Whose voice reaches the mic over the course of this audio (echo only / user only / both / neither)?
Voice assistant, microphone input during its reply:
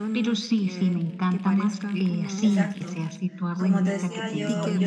both